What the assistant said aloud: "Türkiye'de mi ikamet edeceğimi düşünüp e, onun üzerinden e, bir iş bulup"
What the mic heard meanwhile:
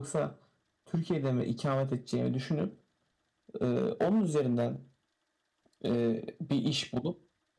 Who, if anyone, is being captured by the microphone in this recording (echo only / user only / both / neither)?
echo only